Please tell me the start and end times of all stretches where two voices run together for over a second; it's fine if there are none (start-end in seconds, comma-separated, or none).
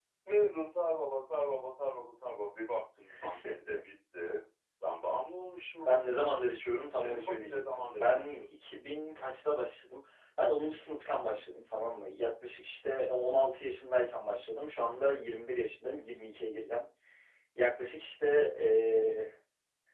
6.9-8.4